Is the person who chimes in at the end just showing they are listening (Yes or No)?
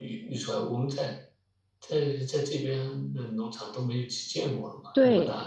No